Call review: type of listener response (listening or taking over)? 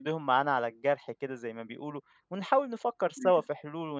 listening